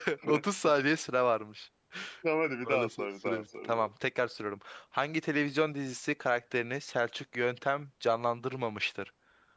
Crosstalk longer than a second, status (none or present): present